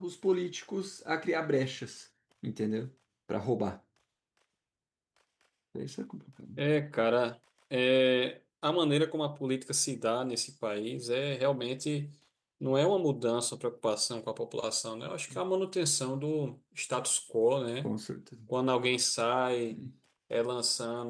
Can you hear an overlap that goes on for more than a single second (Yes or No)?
No